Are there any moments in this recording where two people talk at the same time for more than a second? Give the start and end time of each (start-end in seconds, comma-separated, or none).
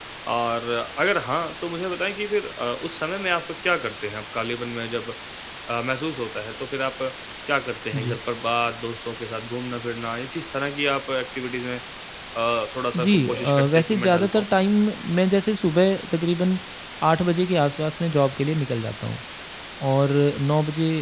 12.9-14.5